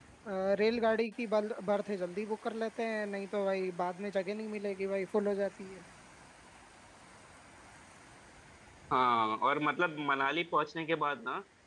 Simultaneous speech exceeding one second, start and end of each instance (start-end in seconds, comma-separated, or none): none